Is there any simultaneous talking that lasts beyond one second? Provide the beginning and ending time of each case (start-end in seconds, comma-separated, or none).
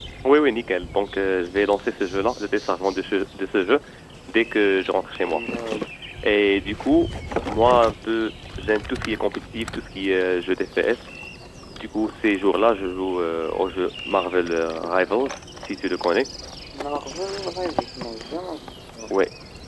none